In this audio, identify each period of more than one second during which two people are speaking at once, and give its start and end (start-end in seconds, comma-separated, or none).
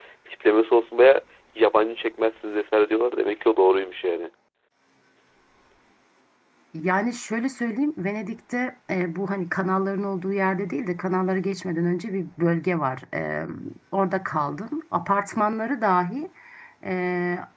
none